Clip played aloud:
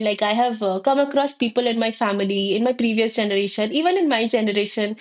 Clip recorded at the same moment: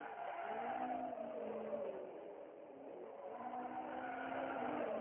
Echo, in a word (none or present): none